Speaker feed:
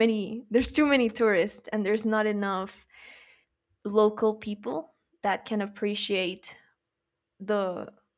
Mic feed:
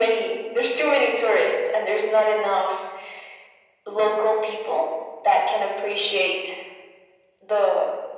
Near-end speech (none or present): none